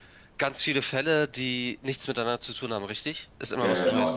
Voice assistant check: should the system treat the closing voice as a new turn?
Yes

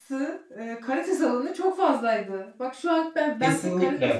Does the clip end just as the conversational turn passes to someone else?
Yes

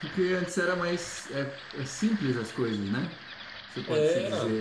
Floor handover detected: No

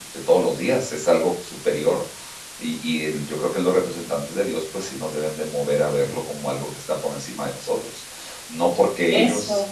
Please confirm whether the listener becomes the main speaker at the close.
No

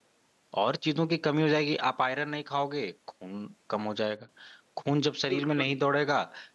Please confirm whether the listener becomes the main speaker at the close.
No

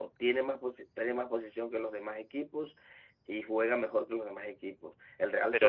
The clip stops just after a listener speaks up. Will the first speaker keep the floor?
No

